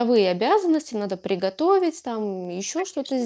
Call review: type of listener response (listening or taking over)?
listening